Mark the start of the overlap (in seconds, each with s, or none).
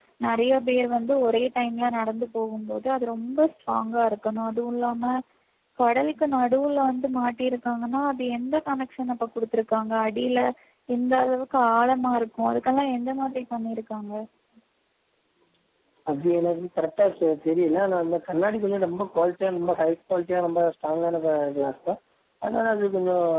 none